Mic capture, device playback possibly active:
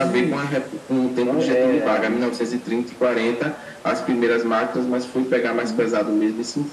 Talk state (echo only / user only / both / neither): echo only